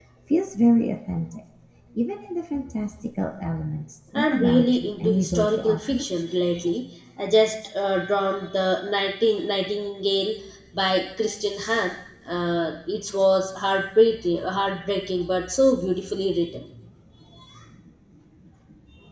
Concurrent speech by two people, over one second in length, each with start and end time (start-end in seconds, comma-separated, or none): 4.3-6.0